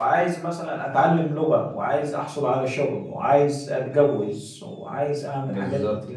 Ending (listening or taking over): taking over